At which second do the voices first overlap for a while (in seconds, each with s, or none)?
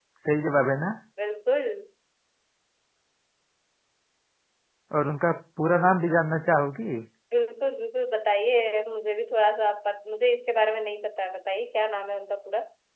none